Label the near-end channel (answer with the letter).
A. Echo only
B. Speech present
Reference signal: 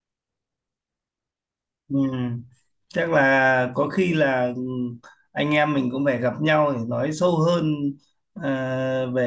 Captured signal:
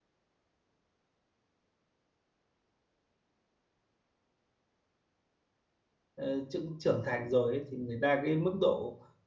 B